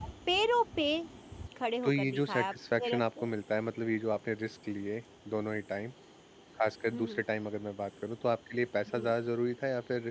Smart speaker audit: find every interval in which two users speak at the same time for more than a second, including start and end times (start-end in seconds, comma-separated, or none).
1.8-3.3